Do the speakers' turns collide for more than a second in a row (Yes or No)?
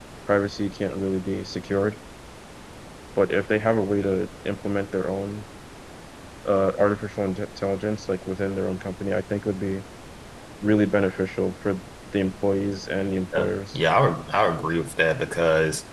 No